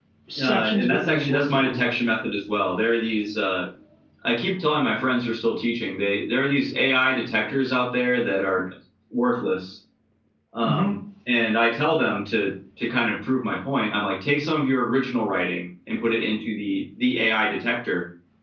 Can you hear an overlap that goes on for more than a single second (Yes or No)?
Yes